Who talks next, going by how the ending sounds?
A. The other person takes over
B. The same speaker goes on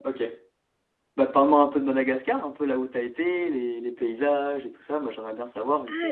A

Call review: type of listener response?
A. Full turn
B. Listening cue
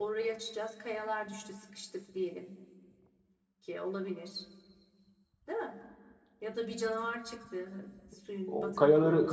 A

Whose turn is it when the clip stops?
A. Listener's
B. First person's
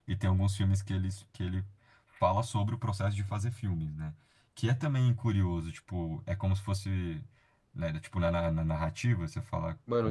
A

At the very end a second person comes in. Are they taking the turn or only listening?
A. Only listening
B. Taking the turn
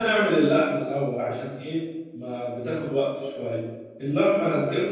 A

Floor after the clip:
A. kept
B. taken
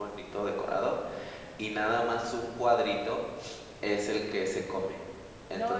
A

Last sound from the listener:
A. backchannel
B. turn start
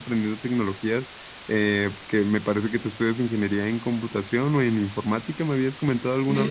B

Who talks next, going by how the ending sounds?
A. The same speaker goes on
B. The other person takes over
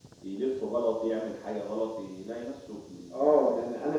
B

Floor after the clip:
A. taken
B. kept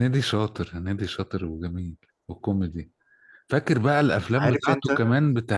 B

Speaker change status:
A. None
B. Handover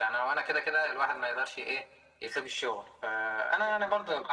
A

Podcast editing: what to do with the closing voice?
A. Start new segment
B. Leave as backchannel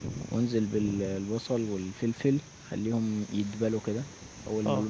B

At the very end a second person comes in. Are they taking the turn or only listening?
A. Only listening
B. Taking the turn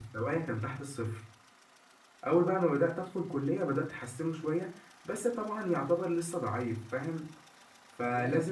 A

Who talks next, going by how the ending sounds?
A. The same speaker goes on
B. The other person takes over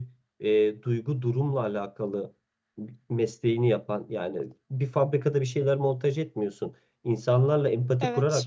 A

